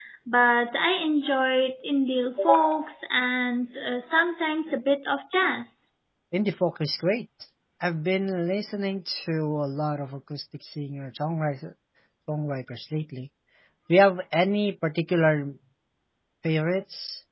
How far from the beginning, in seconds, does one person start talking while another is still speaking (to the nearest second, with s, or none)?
none